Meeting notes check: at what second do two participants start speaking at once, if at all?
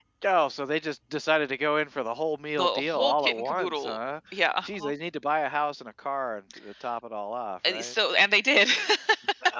2.6 s

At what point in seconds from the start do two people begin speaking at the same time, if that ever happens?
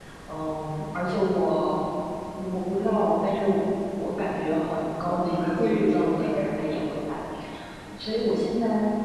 5.0 s

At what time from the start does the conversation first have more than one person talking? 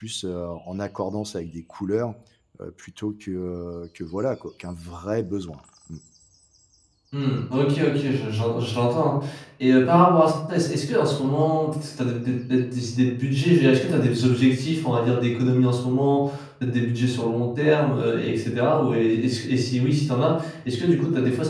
none

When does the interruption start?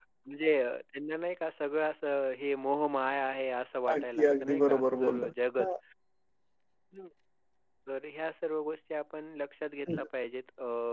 3.9 s

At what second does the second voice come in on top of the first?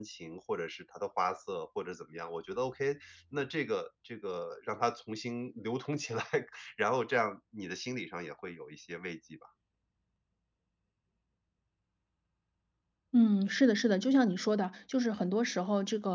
none

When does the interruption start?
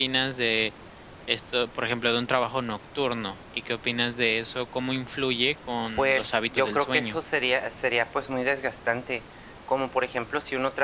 6.0 s

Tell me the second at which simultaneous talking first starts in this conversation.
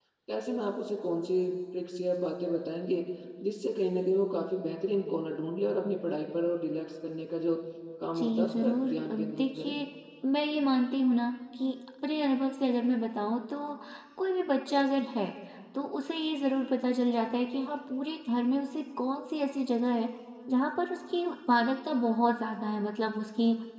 8.2 s

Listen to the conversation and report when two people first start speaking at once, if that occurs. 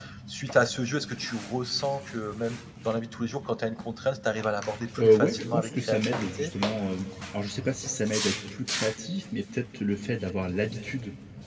5.0 s

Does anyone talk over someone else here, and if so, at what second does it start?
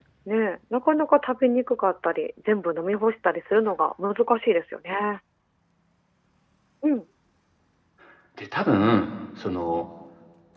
none

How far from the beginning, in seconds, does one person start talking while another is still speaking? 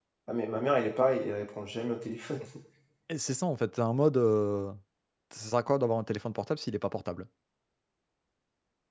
none

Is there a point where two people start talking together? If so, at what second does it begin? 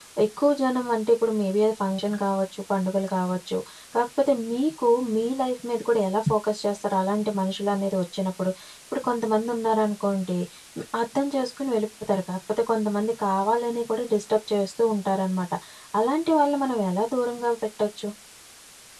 none

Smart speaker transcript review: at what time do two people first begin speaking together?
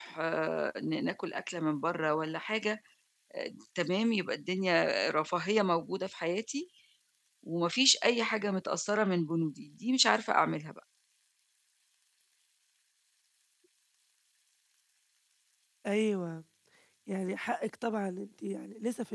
none

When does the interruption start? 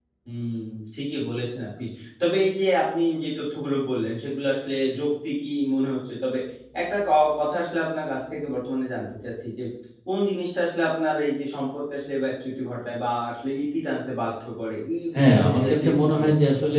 15.1 s

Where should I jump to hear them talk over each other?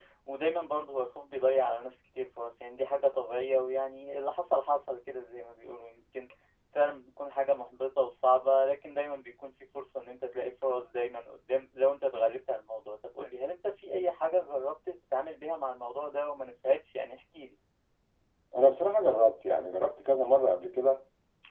none

